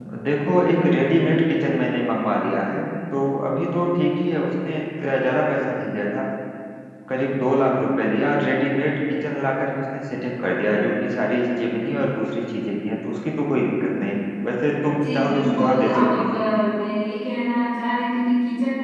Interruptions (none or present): present